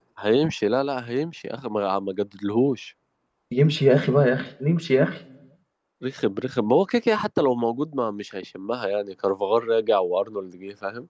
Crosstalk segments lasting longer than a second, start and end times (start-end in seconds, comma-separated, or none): none